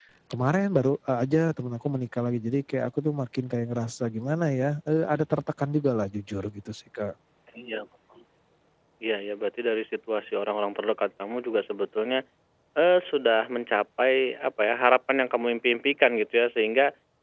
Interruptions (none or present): none